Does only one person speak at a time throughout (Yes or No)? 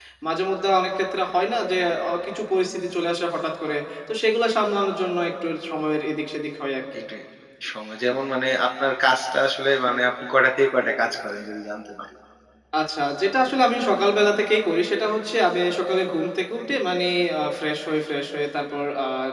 Yes